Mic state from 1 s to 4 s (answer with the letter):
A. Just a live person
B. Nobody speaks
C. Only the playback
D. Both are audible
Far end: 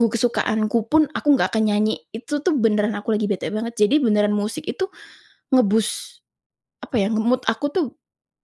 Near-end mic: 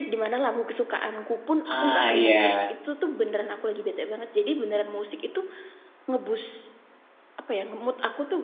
D